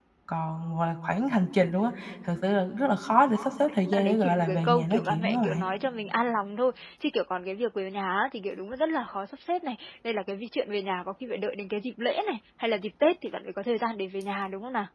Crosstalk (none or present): present